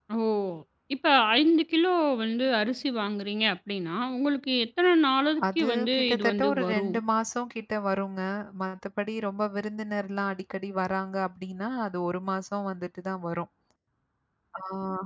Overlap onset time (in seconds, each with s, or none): 5.4 s